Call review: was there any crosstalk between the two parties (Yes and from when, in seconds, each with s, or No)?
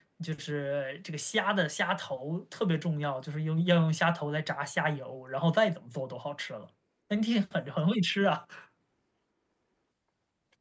No